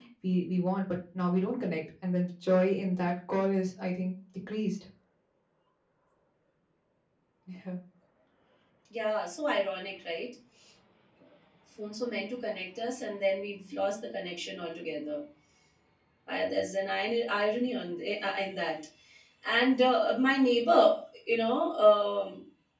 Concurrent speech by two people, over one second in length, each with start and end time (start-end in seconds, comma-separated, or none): none